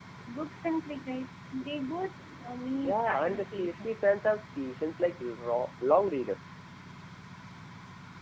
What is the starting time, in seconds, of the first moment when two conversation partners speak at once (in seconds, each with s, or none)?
2.7 s